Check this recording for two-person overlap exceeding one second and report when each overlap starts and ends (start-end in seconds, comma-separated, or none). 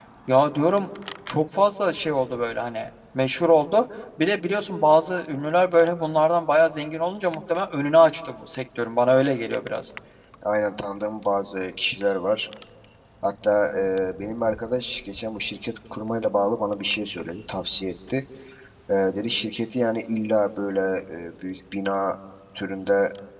none